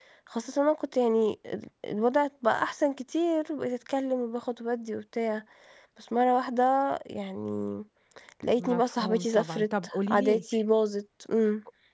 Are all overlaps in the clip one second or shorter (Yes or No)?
No